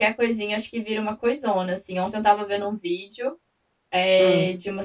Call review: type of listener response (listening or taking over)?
listening